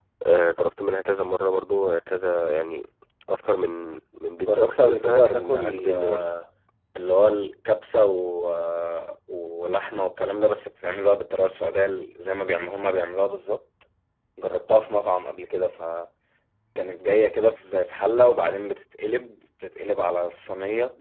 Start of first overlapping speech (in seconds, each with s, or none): 4.4 s